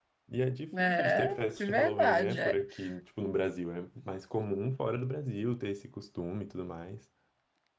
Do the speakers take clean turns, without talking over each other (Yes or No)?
No